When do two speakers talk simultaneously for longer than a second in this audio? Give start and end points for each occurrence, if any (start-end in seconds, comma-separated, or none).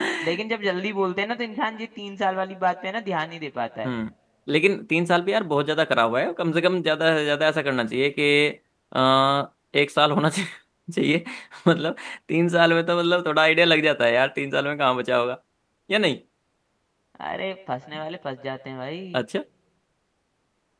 none